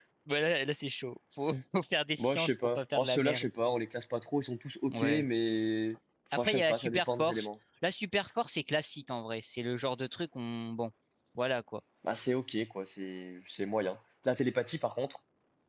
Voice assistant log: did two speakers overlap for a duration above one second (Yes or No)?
Yes